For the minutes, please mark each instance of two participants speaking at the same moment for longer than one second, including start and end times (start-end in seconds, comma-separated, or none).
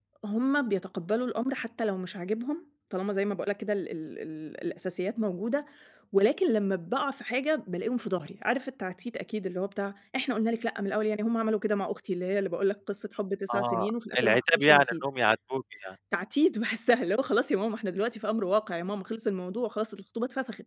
13.5-15.0